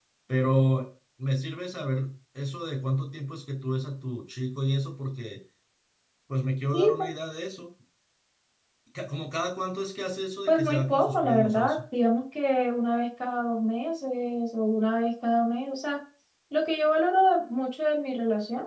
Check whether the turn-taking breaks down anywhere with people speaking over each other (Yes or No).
Yes